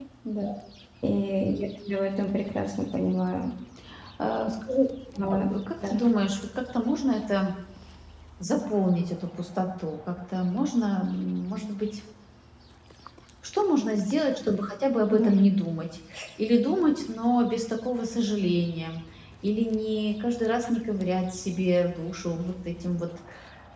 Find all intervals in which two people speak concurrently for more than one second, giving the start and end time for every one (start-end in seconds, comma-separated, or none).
none